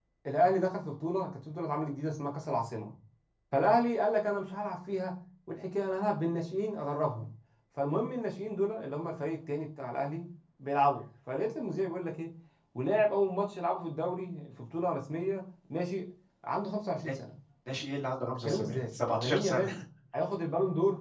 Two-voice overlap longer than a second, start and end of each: 18.4-19.8

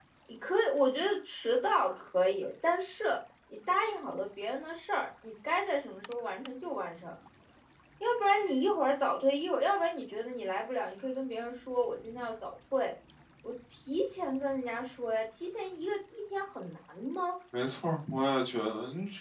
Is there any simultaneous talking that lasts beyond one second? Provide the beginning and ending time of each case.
none

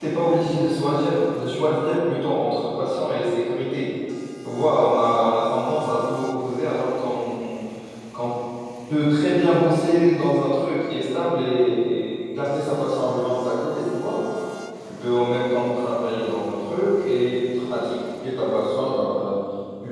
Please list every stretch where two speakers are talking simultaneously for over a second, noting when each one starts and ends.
none

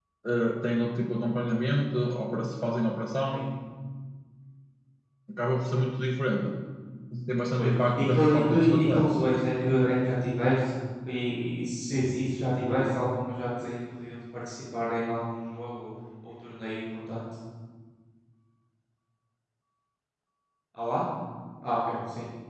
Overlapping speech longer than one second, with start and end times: 7.6-9.2

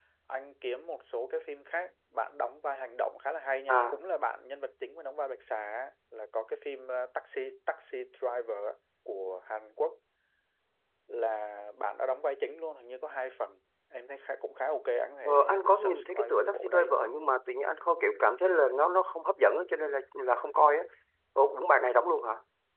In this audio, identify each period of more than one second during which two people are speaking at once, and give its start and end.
15.2-17.0

